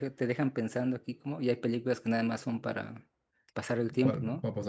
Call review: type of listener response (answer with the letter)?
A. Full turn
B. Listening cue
A